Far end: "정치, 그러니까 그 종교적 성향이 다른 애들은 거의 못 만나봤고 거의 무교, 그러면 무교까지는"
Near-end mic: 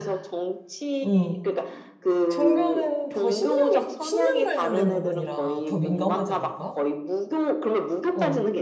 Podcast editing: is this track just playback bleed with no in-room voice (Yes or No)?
No